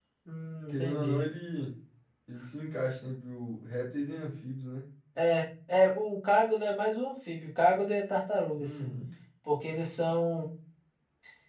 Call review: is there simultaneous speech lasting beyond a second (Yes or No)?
No